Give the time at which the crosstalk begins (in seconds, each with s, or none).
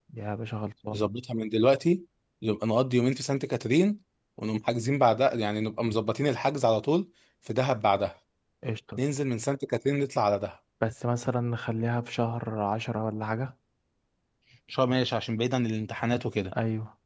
none